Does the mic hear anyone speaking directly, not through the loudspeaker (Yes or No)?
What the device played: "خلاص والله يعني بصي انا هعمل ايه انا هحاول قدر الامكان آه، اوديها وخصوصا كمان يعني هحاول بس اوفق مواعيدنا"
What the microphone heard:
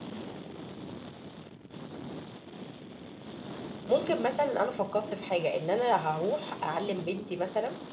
Yes